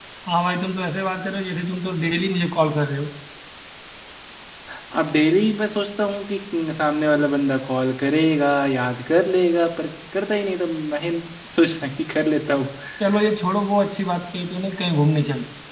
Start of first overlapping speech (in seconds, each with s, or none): none